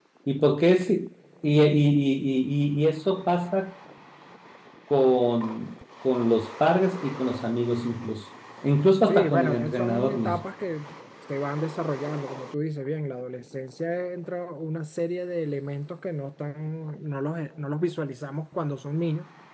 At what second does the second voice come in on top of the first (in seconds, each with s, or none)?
9.1 s